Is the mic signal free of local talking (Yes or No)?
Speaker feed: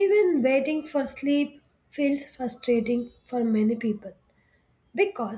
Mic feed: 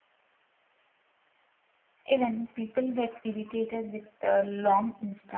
No